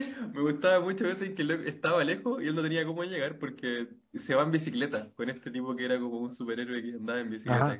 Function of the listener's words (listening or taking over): taking over